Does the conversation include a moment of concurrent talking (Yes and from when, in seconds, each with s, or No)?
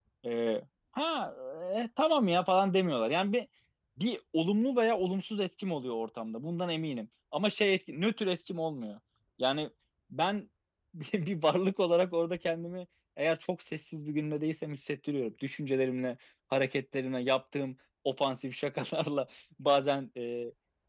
No